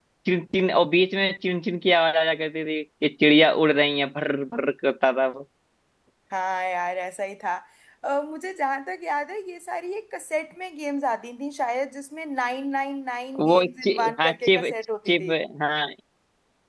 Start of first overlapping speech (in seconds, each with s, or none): 13.4 s